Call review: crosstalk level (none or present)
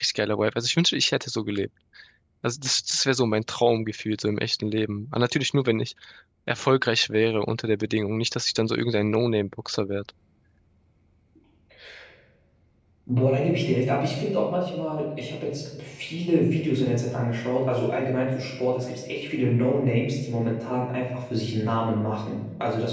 none